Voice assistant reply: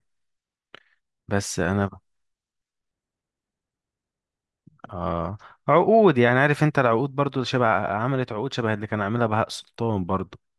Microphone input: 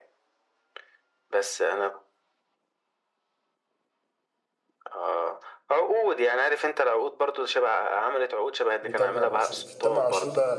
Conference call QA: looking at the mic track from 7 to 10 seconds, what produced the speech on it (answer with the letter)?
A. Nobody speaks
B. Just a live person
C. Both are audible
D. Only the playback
C